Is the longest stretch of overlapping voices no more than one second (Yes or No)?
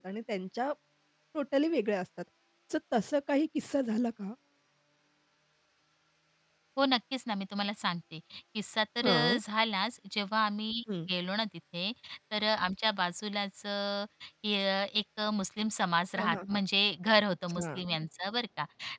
Yes